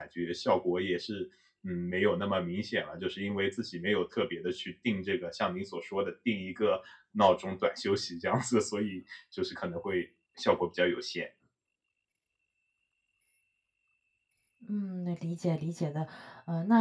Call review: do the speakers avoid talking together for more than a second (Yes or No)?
Yes